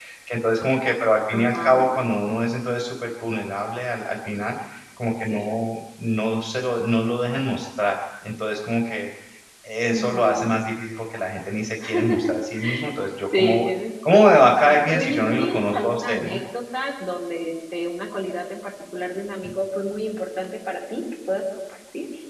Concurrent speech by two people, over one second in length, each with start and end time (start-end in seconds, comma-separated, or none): 14.1-16.4